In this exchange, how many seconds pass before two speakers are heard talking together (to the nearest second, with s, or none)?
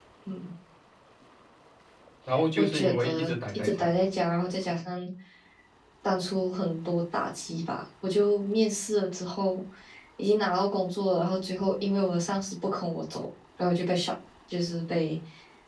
3 s